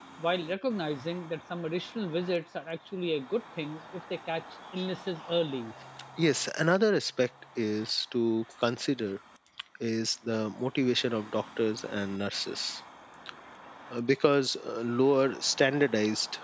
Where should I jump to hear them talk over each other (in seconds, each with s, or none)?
none